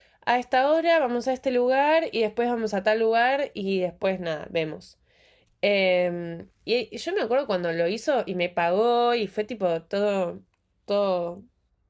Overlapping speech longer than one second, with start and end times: none

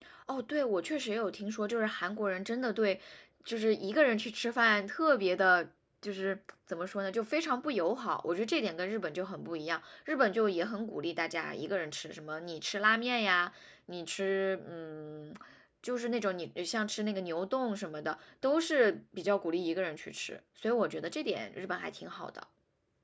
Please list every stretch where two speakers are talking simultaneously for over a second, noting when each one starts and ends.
none

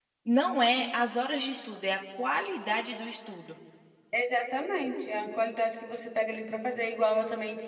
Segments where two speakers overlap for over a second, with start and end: none

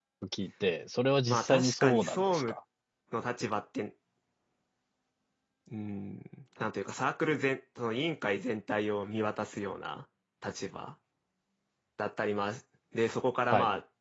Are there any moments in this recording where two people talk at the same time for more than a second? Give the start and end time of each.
1.3-2.5

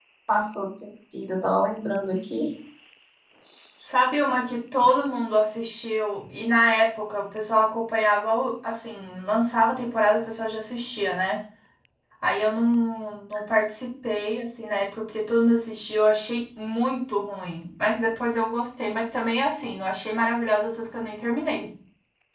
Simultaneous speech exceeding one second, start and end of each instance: none

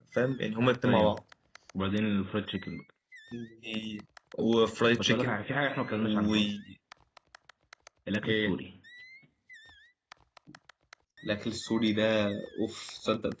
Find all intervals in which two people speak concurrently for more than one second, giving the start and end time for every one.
none

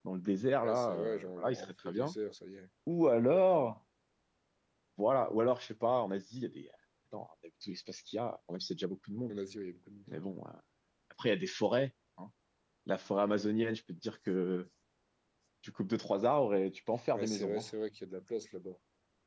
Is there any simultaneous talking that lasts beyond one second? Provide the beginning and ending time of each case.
0.6-2.1

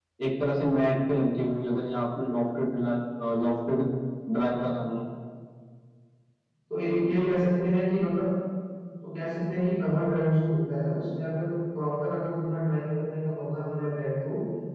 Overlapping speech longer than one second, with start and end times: none

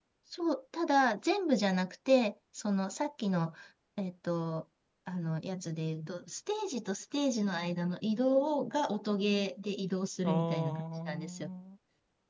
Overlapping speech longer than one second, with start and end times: 10.2-11.5

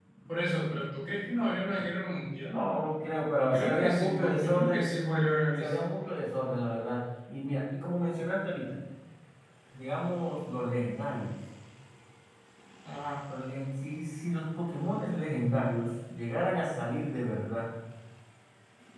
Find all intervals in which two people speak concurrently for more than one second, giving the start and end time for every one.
3.4-5.0

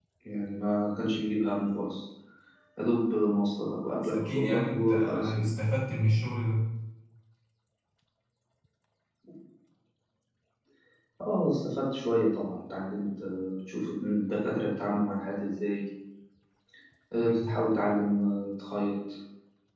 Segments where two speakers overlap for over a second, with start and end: 4.0-5.3

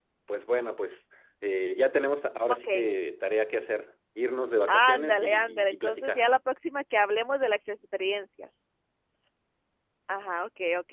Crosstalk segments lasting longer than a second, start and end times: 4.7-6.2

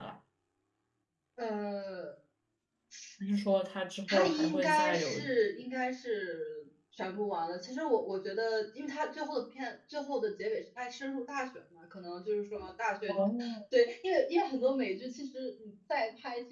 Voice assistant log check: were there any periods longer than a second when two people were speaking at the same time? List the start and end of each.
4.1-5.3

